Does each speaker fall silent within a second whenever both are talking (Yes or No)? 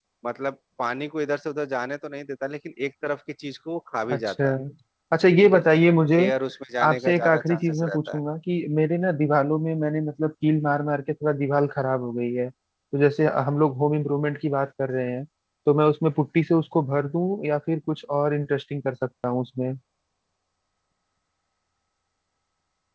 No